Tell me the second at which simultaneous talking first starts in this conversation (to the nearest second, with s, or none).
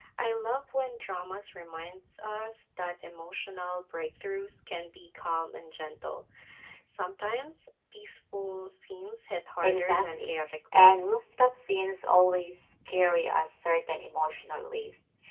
10 s